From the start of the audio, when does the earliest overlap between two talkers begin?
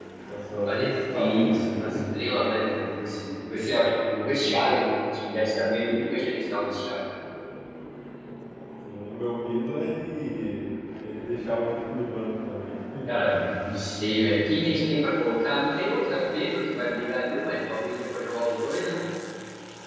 1 s

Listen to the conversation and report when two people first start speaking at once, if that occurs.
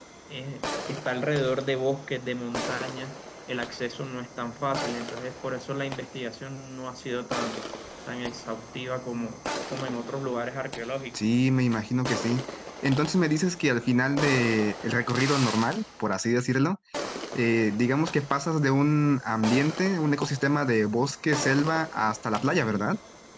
none

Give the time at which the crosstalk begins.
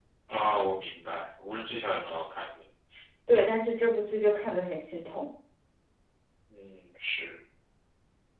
none

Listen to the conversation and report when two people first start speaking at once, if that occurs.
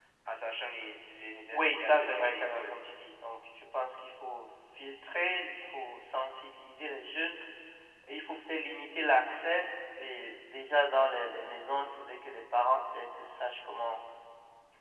2 s

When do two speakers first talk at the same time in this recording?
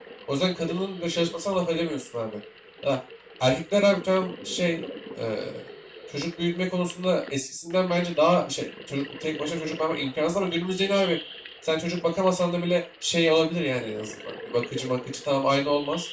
none

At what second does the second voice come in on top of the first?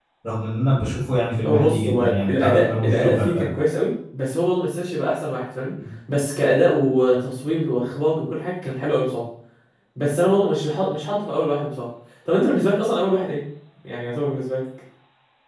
1 s

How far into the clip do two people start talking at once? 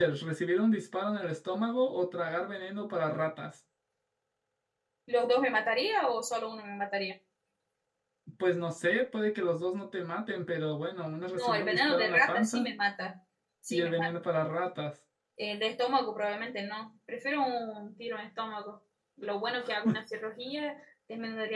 11 s

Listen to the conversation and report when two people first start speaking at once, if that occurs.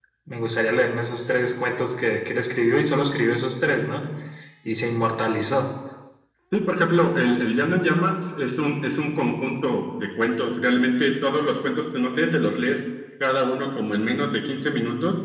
none

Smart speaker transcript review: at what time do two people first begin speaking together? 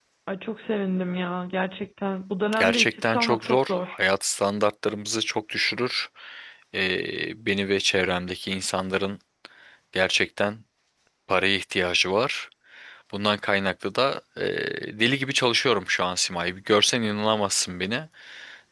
3 s

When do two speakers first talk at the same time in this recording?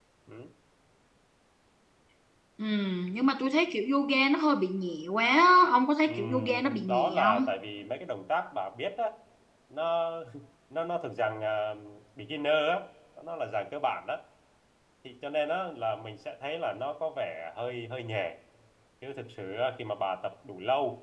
6 s

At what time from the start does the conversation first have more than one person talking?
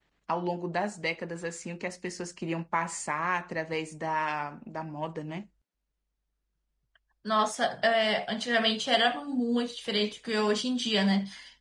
none

